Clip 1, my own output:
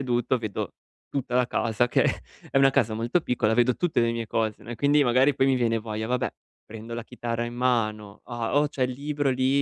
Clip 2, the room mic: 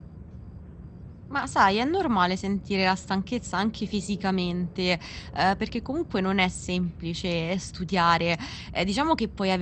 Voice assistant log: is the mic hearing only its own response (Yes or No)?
No